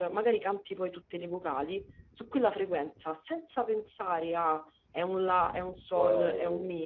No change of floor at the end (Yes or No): Yes